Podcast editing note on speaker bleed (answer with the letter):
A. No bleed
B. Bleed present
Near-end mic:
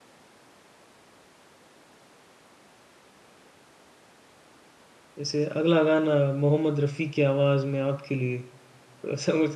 A